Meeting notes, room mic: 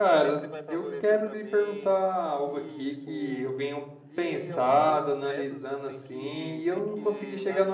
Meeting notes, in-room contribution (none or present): present